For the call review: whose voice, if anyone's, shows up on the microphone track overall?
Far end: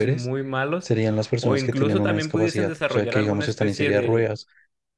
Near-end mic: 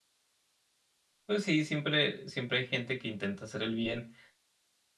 user only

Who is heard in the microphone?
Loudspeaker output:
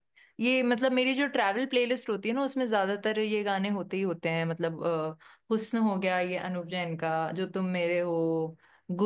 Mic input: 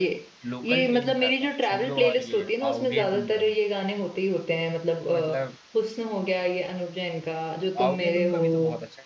both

